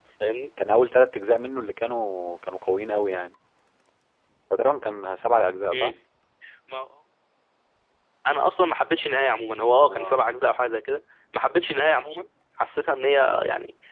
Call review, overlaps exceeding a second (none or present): none